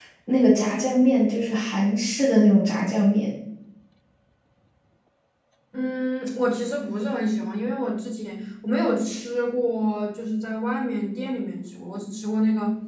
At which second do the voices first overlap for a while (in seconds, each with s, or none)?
none